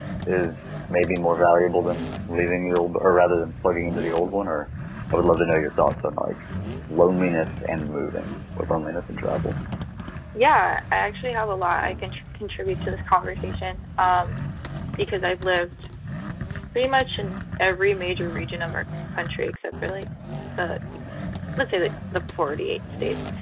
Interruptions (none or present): none